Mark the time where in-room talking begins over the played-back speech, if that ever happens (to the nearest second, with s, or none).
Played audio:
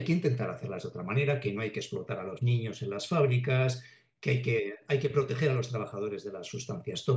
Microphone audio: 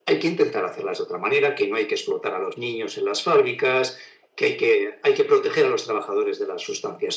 none